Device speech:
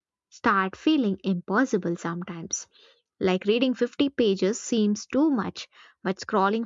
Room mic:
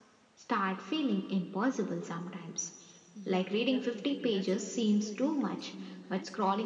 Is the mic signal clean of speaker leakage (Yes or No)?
No